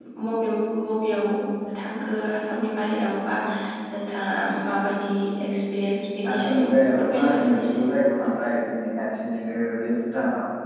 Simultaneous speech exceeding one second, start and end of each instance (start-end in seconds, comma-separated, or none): 6.3-7.8